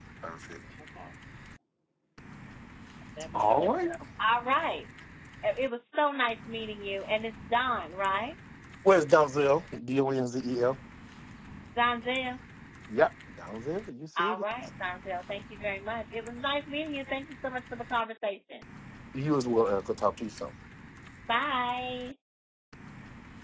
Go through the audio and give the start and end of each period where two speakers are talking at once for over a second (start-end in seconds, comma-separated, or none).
none